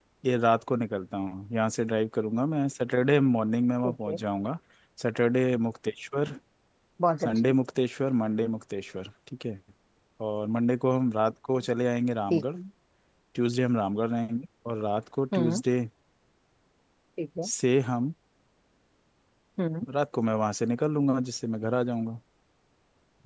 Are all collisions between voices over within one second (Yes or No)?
Yes